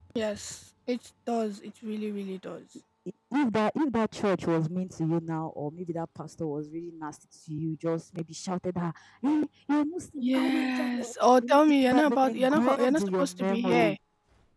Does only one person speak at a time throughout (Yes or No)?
No